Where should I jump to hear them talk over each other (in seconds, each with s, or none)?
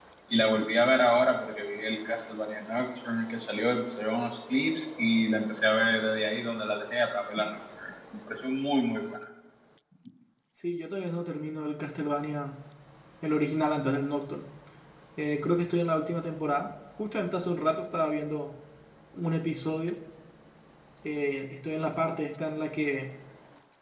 none